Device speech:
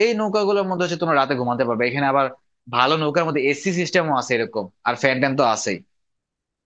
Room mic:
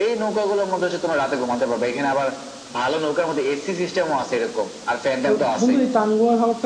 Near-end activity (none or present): present